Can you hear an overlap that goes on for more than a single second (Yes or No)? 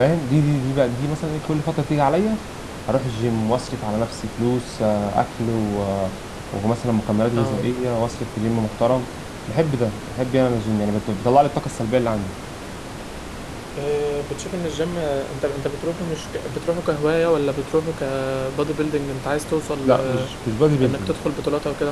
No